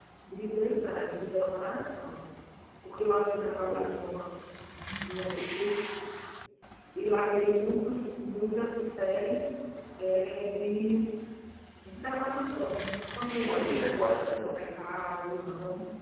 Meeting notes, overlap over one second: present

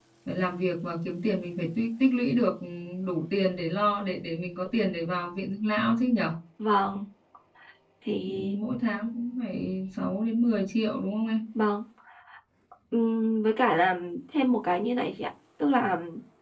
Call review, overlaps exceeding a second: none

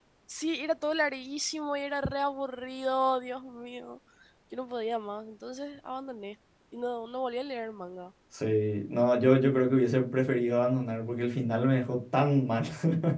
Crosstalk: none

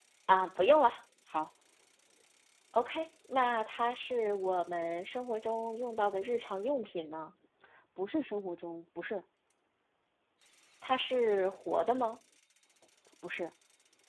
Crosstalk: none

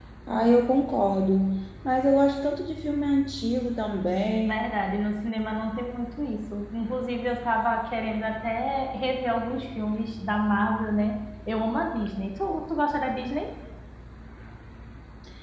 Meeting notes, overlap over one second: none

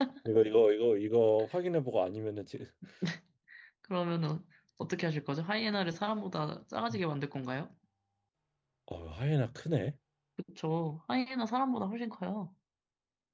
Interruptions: none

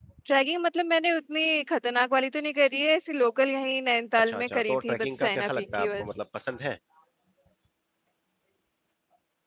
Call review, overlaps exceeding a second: present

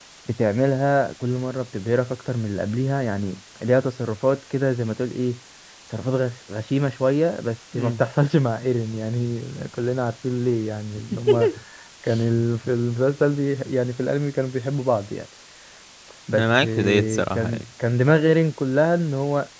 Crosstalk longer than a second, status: present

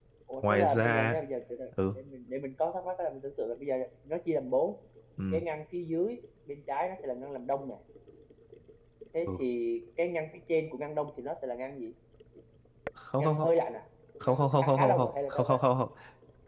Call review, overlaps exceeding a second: present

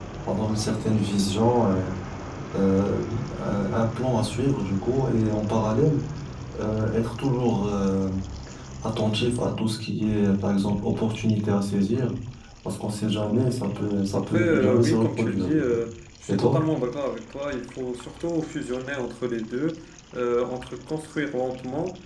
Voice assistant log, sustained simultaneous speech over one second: present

